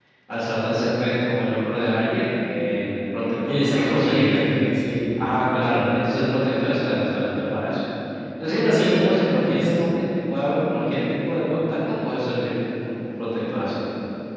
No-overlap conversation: No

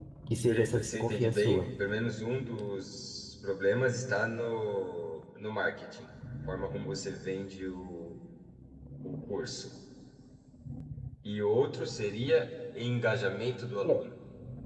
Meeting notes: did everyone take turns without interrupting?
No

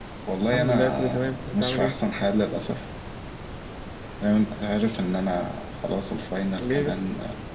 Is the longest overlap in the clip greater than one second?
Yes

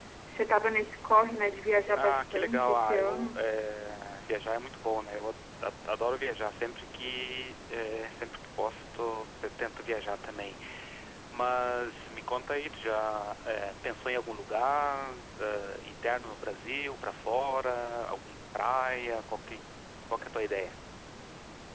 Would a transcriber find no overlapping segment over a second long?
No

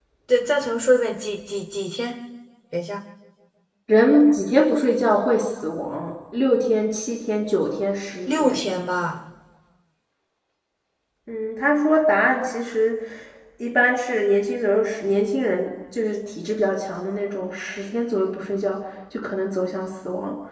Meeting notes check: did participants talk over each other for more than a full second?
No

